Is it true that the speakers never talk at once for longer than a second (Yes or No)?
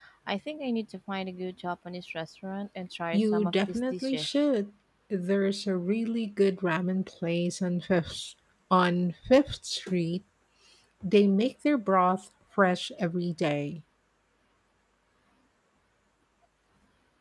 No